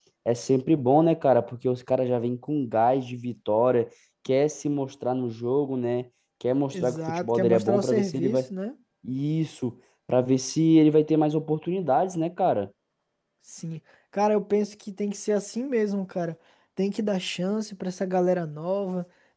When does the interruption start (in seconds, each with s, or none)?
6.7 s